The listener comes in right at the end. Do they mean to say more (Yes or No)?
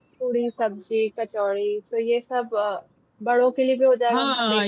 Yes